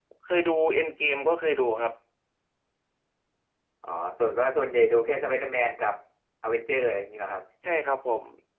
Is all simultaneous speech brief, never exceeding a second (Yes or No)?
Yes